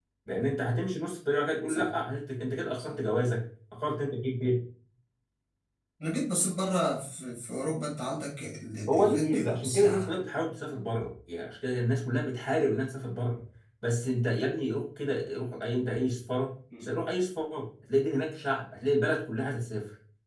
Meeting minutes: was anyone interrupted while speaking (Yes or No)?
Yes